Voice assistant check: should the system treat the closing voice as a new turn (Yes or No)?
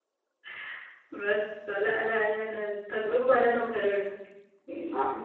Yes